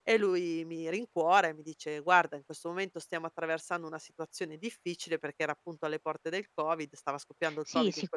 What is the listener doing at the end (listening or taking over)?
taking over